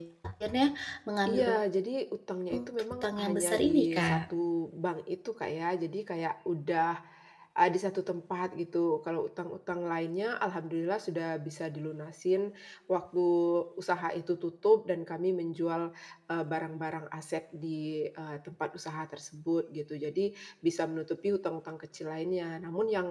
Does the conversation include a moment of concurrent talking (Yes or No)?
Yes